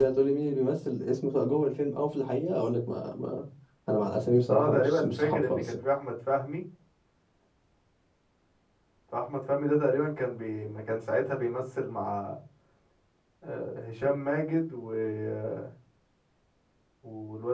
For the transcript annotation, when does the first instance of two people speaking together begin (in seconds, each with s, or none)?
4.5 s